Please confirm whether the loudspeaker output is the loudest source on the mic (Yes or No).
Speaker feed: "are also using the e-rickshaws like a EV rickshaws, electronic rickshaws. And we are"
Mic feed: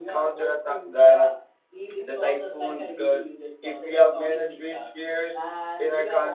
No